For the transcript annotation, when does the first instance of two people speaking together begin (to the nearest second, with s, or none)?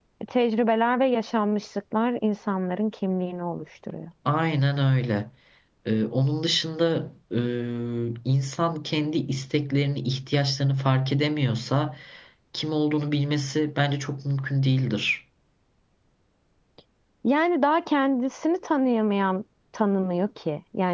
none